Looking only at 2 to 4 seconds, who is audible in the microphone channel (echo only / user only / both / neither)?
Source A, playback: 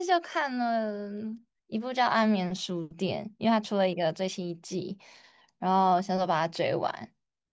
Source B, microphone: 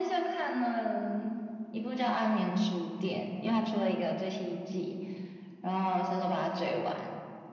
echo only